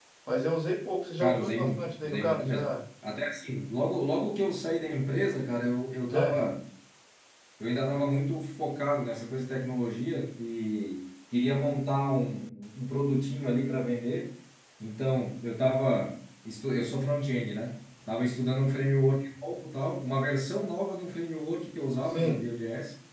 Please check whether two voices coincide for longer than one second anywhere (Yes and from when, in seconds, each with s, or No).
Yes, from 1.2 s